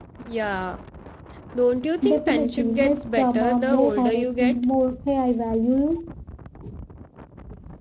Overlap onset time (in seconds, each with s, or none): 2.0 s